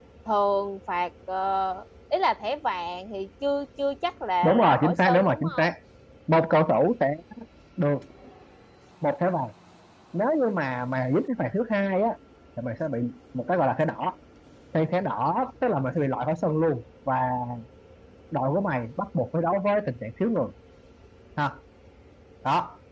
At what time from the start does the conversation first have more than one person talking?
4.4 s

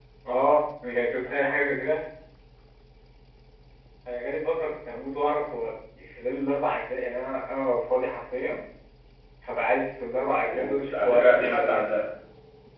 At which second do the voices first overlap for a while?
10.5 s

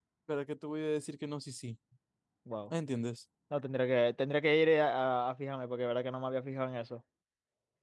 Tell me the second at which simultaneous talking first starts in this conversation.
none

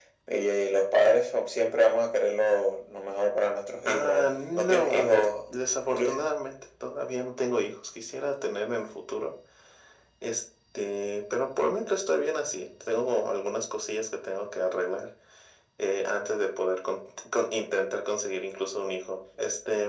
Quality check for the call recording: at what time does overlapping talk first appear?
3.9 s

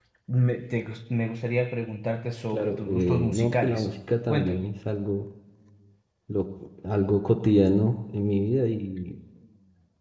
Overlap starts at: 2.5 s

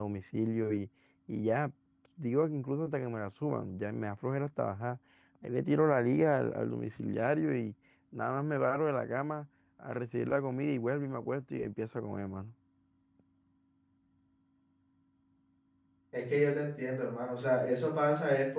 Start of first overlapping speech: none

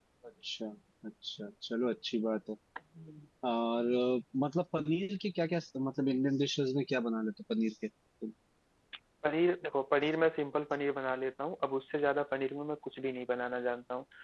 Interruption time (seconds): none

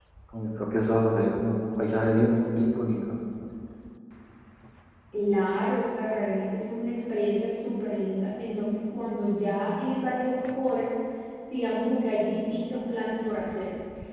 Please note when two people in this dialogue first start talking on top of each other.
none

